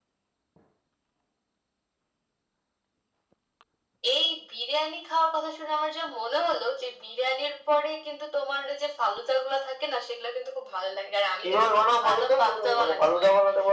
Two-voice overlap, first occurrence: 11 s

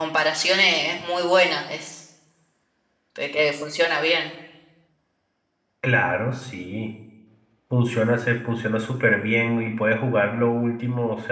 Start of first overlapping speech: none

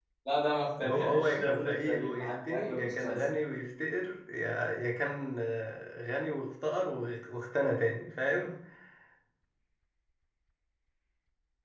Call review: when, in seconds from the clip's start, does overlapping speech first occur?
1 s

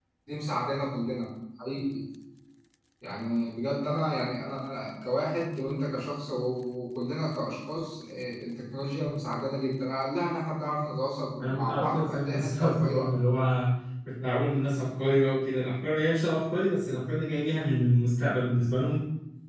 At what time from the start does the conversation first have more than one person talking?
11 s

